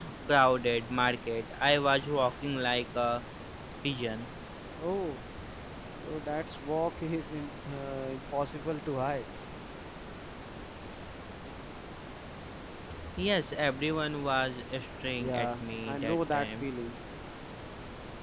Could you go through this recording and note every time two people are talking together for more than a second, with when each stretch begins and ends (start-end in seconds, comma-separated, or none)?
15.2-16.7